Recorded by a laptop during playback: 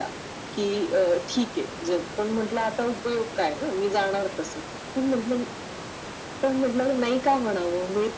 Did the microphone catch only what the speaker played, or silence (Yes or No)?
Yes